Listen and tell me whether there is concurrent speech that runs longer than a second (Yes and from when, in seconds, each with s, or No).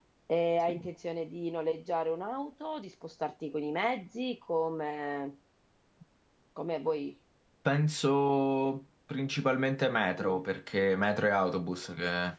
No